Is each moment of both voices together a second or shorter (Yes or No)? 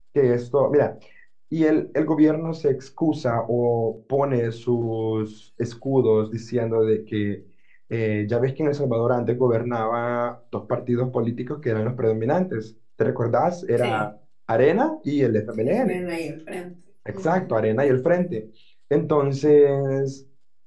Yes